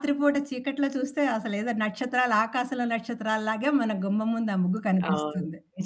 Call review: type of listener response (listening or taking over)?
taking over